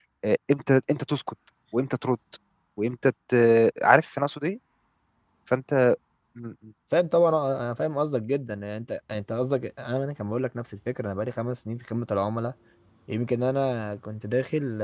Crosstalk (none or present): none